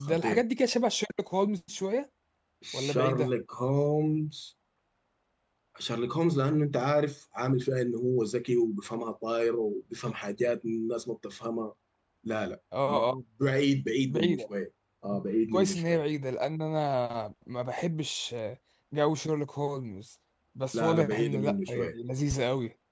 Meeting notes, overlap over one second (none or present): present